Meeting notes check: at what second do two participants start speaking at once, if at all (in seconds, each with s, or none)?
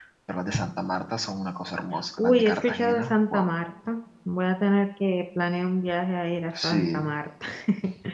2.2 s